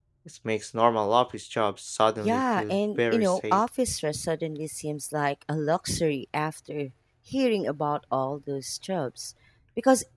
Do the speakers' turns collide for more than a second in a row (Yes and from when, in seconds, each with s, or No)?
Yes, from 2.2 s